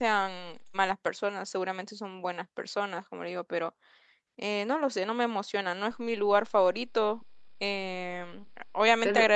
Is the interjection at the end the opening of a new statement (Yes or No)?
No